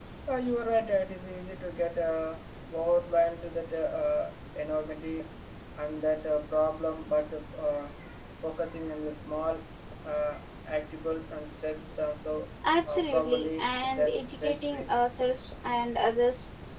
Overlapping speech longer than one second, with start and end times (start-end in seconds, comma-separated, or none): 12.9-14.9